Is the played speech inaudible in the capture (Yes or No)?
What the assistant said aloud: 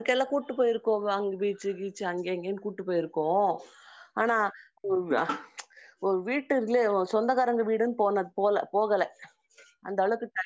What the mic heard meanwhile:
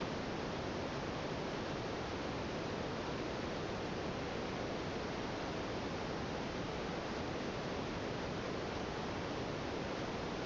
Yes